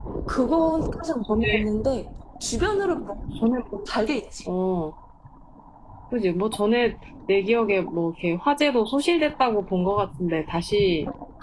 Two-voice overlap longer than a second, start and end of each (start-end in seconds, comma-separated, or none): none